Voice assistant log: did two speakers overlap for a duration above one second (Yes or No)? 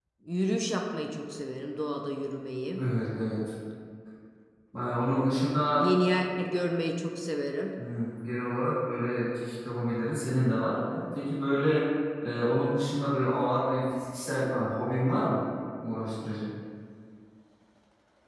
No